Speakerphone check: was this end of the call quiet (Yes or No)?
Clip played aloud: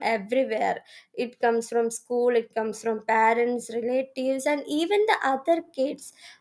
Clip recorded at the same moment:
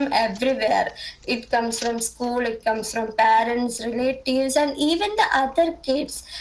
Yes